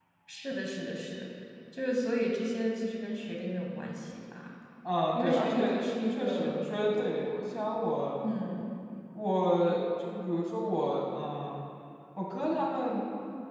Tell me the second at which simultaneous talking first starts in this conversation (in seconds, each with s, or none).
5.1 s